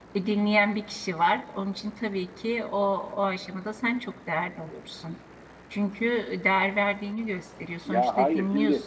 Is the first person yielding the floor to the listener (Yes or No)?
Yes